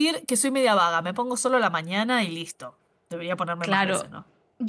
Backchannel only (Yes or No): No